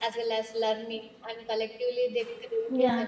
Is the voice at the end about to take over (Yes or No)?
Yes